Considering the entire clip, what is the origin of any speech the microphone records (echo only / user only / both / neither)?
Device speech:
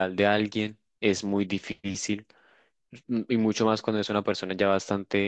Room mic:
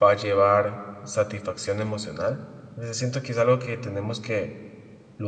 user only